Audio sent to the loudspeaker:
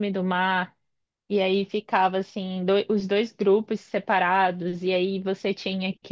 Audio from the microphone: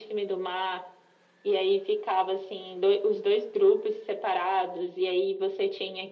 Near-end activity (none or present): none